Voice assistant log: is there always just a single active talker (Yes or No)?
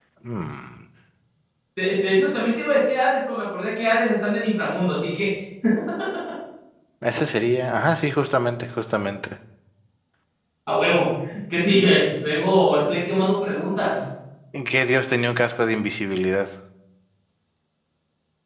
Yes